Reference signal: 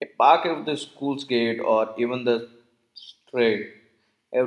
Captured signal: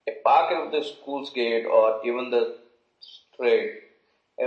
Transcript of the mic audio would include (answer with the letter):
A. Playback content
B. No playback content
A